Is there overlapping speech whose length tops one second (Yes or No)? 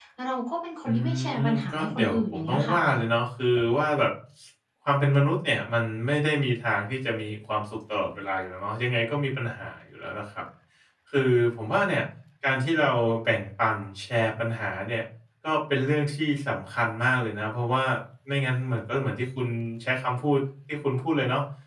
Yes